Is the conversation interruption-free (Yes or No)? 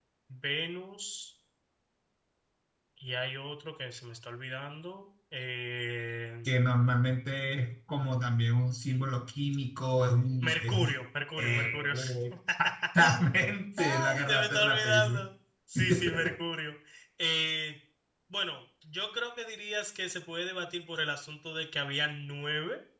No